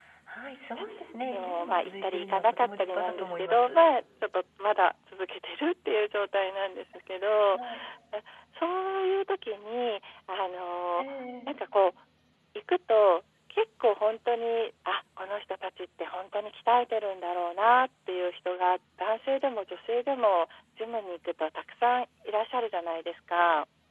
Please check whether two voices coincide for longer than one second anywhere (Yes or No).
Yes